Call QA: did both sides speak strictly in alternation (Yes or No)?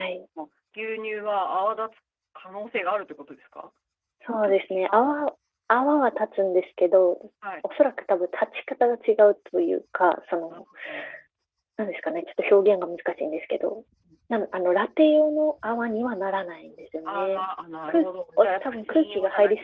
No